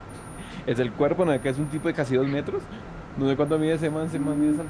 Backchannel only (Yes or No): No